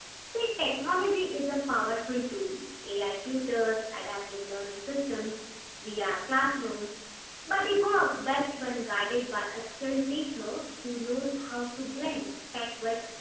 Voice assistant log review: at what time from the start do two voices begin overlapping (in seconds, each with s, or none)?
none